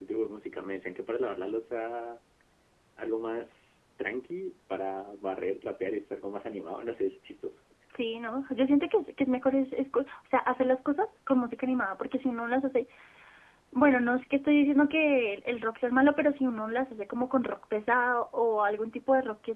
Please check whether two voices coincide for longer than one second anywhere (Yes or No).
No